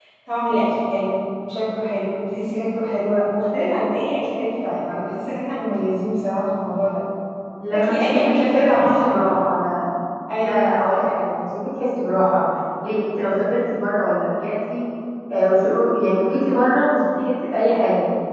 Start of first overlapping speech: 8 s

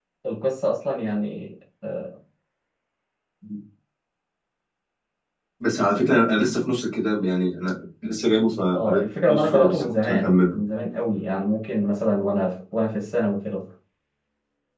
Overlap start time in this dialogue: 9 s

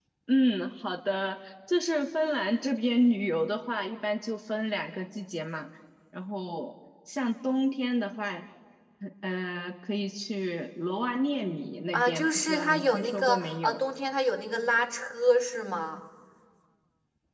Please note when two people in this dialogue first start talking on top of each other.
12 s

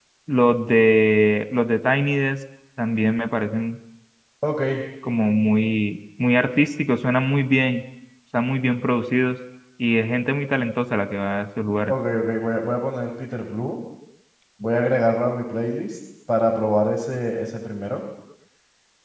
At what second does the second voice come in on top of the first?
none

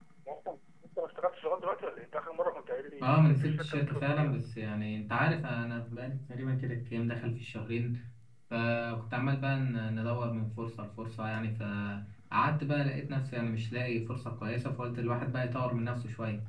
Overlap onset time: 3 s

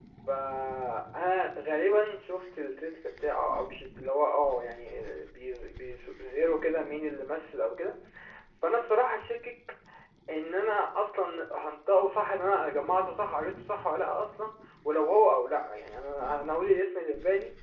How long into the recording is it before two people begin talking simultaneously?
none

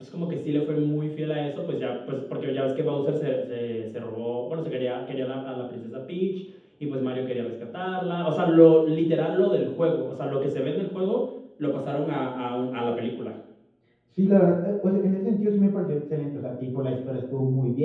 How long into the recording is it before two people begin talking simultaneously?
none

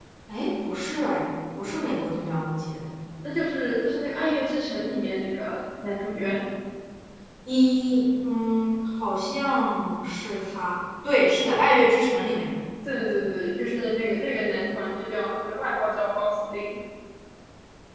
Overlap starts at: none

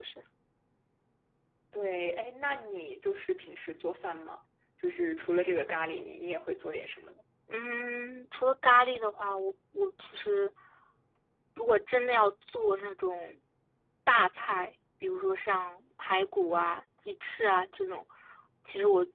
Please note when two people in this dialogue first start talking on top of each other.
none

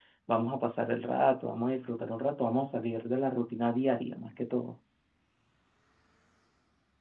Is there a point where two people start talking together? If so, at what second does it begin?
none

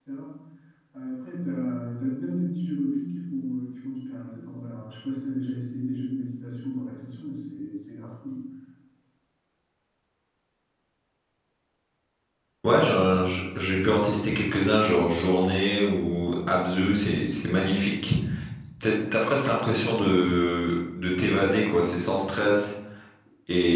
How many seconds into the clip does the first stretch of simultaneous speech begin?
none

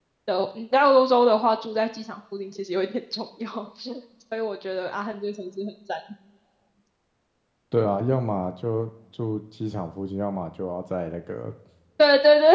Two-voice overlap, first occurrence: none

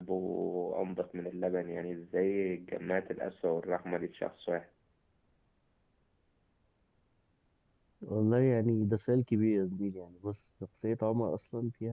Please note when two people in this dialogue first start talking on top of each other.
none

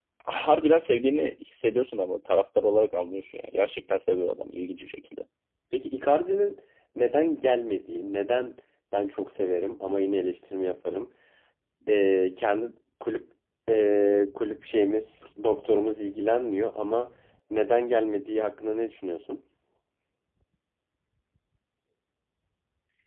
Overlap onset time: none

